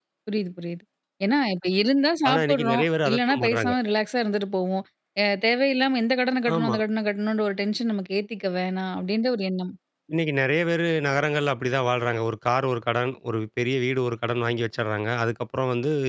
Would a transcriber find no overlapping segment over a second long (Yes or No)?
No